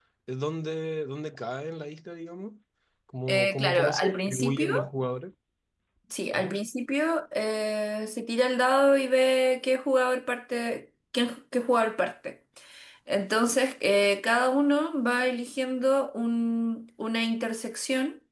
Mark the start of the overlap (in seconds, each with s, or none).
3.3 s